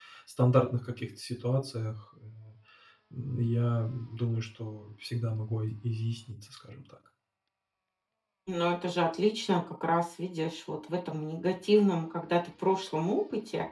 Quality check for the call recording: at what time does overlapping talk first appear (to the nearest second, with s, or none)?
none